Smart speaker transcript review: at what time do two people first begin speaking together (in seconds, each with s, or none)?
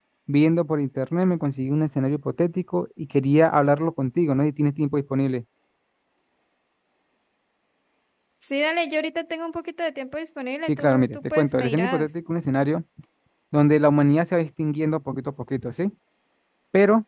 10.7 s